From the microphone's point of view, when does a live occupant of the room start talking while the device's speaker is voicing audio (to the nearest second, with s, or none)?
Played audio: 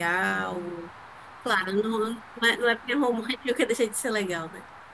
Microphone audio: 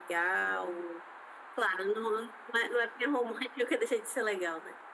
none